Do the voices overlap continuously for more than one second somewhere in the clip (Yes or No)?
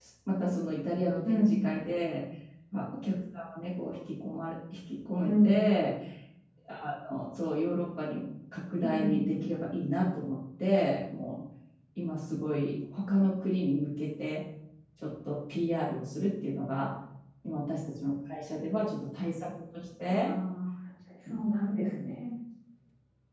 No